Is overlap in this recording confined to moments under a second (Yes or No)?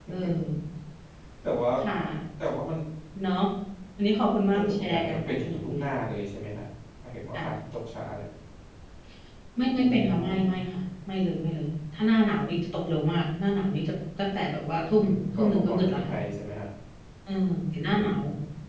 No